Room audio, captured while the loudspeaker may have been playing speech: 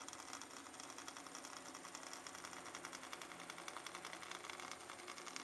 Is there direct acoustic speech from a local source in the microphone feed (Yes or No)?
No